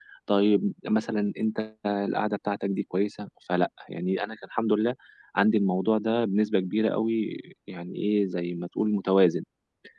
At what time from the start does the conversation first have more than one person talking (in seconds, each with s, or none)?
none